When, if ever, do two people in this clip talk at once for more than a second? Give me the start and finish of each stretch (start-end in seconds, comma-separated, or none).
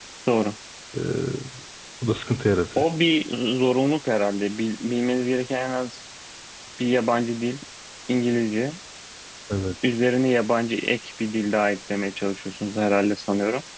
none